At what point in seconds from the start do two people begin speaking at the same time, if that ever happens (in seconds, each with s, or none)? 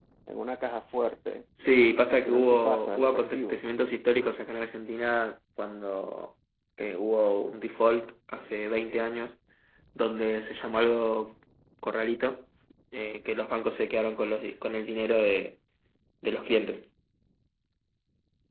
2.1 s